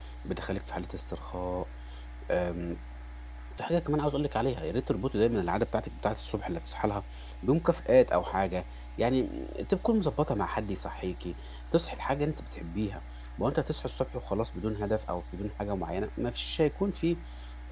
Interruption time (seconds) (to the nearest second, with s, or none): none